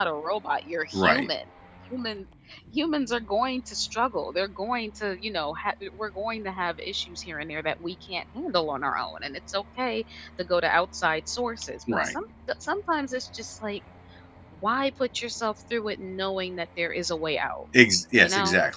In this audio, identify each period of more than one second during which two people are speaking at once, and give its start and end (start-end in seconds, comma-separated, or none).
none